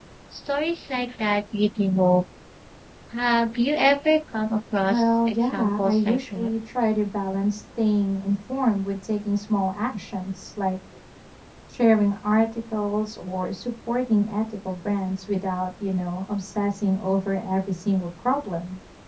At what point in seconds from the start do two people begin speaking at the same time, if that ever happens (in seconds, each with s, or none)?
4.9 s